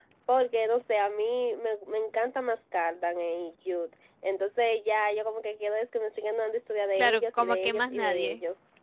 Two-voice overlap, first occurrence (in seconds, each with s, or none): 7.0 s